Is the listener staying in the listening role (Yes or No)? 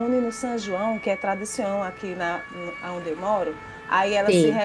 Yes